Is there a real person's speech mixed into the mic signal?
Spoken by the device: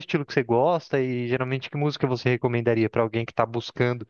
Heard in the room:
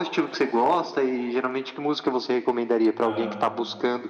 Yes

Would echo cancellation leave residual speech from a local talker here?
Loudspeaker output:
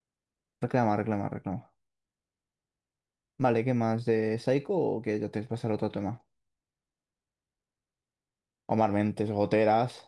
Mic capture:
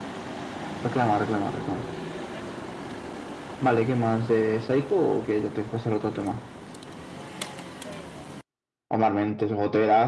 No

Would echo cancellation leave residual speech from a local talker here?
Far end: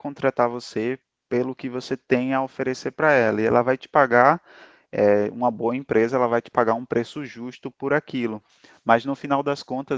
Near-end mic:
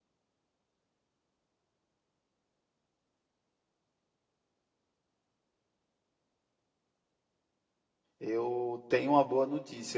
Yes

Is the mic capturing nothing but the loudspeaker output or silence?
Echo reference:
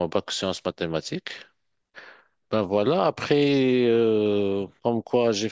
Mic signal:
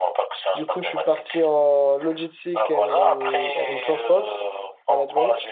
No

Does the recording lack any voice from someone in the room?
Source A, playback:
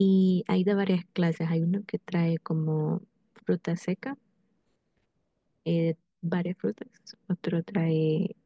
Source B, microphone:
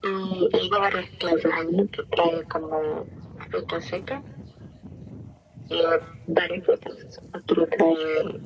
Yes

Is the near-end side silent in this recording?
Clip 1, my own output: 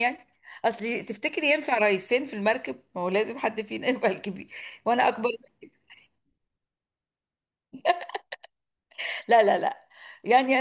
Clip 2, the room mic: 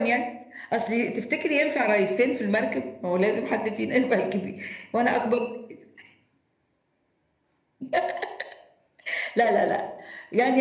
Yes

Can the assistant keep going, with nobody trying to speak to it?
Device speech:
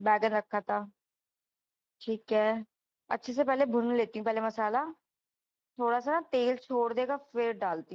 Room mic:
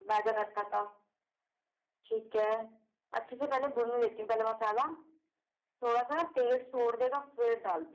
Yes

